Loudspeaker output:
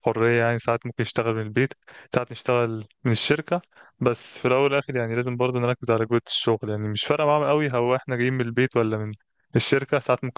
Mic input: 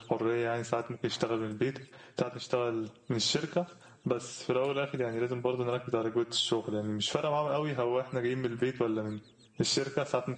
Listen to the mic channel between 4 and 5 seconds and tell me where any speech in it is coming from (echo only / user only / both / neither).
echo only